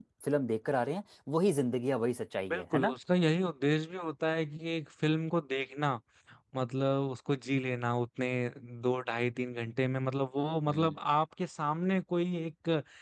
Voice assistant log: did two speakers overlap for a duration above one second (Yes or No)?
No